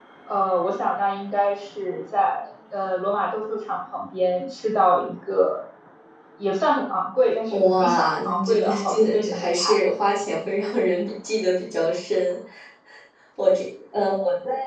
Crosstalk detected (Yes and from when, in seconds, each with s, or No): Yes, from 7.5 s